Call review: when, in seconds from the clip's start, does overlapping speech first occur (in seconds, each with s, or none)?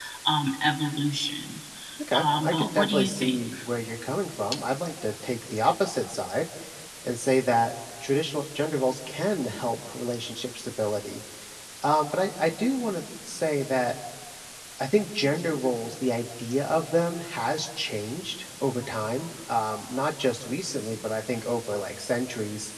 2.1 s